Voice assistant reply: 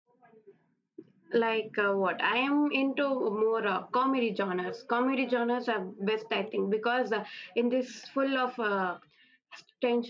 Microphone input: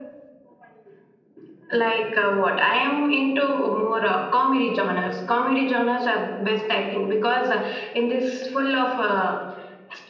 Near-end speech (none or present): none